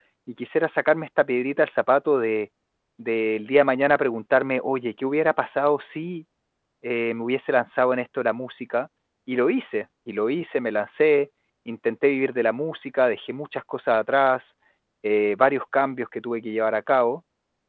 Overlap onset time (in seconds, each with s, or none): none